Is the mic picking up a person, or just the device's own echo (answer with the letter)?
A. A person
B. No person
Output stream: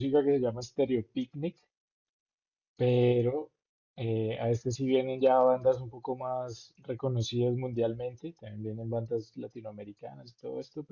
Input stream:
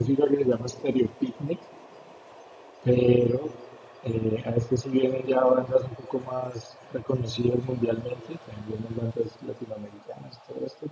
B